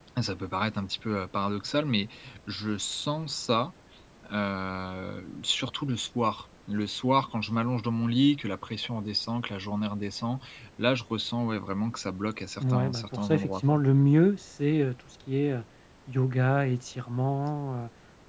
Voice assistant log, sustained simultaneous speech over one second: present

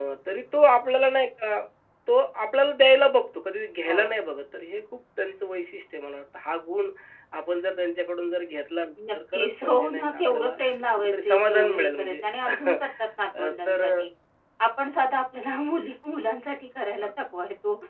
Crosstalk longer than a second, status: present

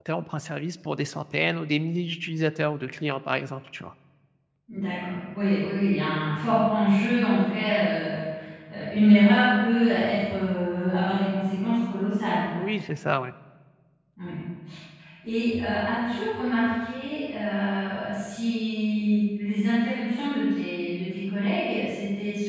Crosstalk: none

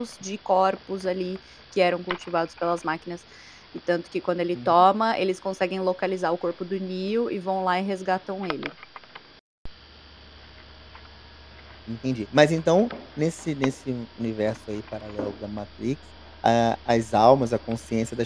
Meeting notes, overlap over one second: none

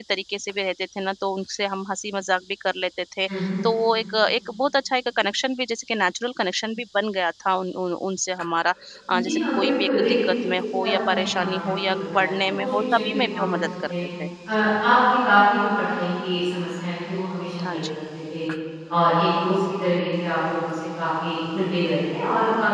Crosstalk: present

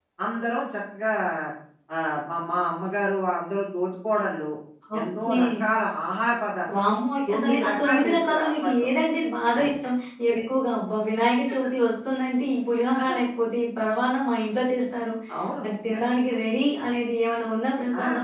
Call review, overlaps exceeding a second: present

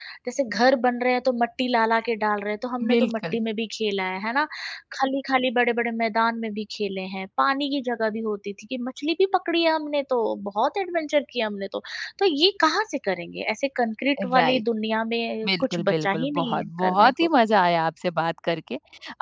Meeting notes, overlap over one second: present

